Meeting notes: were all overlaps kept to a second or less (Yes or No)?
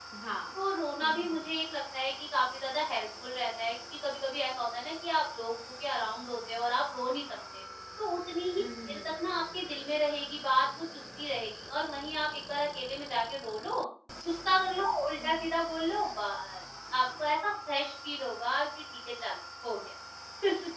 Yes